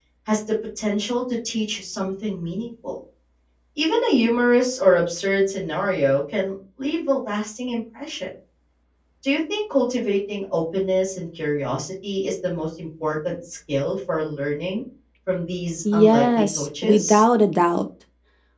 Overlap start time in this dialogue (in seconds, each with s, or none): 15.9 s